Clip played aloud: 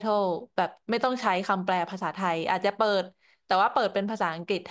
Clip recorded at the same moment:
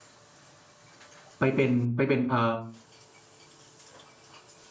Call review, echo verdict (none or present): none